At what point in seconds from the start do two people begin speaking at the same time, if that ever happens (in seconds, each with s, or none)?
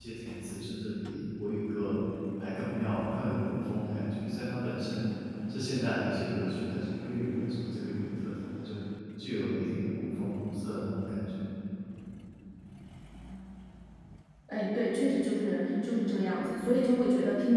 none